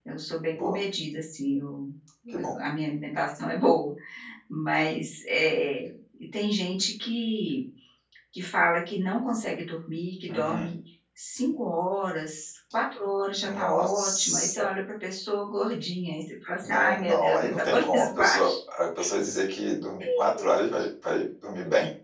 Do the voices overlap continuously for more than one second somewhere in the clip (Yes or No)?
Yes